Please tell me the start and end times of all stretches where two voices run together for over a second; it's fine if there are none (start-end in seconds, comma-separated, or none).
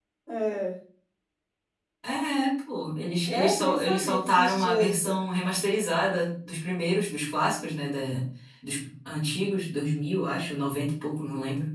3.2-5.2